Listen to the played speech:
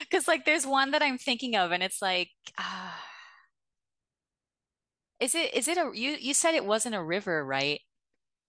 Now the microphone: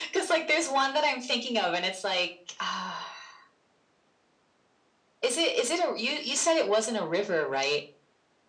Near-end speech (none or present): none